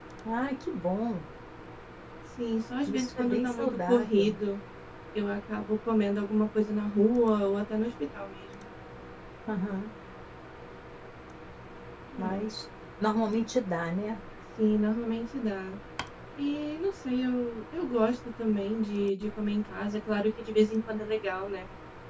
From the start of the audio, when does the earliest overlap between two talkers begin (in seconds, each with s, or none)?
2.9 s